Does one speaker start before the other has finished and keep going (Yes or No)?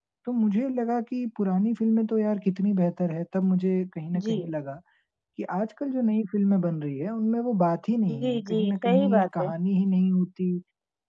Yes